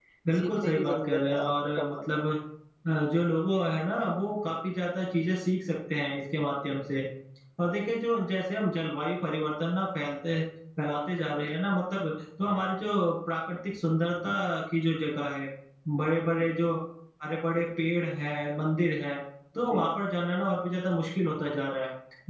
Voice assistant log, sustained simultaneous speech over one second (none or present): present